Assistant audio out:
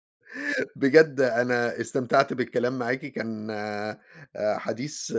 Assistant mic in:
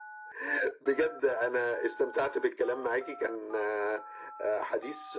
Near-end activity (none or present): none